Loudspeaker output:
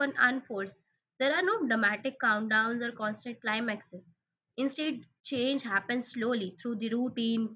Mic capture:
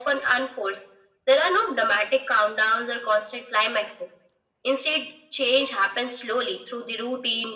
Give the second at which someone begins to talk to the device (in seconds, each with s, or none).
none